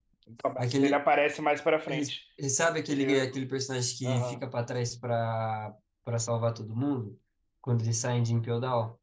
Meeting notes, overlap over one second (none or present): none